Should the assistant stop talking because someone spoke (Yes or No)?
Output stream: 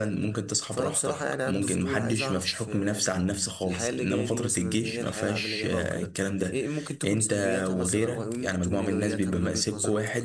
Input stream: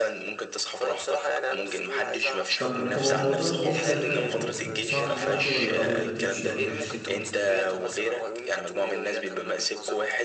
Yes